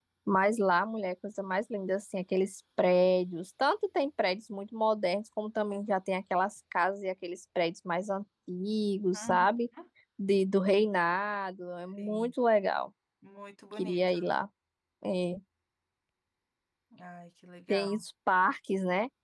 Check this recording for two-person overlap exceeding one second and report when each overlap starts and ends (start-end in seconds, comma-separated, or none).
none